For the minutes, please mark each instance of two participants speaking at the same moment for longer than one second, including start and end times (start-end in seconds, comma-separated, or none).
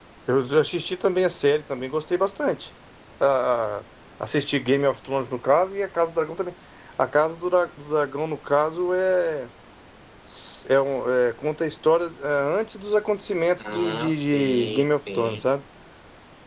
13.6-15.4